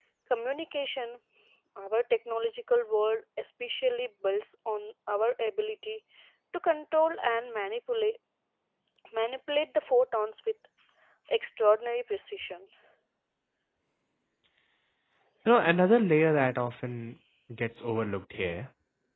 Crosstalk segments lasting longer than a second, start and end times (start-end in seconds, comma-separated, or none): none